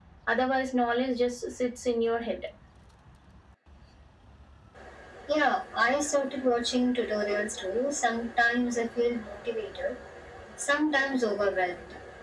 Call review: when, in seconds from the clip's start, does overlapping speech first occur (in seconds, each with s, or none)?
none